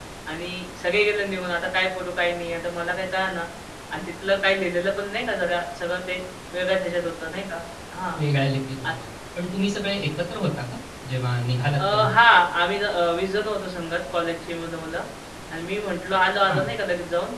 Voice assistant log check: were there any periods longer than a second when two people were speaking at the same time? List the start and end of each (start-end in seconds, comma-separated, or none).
none